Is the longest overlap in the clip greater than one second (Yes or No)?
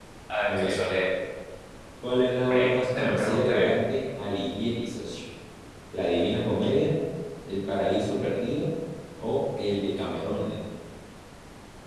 Yes